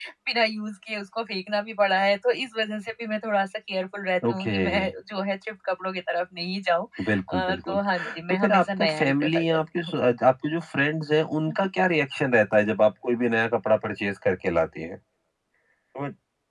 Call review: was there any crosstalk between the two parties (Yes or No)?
Yes